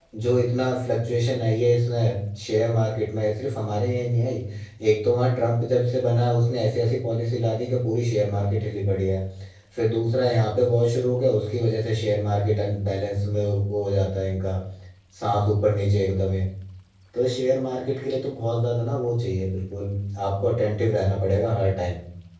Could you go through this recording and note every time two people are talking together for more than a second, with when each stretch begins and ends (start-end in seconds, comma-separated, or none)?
none